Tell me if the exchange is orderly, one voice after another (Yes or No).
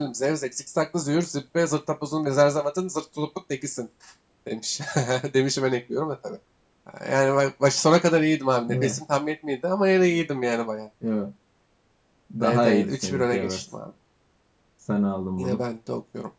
No